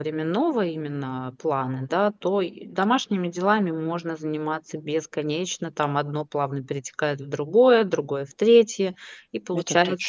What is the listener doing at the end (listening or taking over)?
listening